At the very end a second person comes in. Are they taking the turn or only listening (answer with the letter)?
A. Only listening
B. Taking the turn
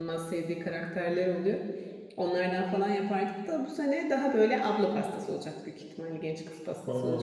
B